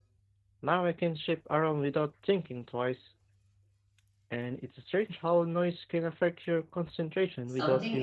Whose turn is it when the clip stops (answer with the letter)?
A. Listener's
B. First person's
A